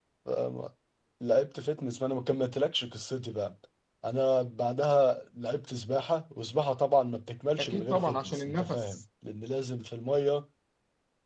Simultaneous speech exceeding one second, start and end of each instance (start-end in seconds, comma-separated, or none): 7.6-9.0